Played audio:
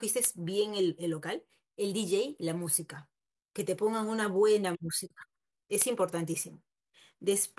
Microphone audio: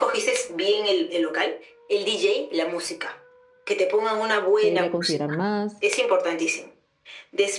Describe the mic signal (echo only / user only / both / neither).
both